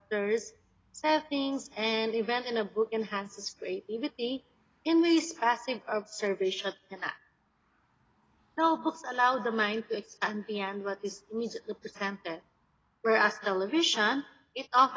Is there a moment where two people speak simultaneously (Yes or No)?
No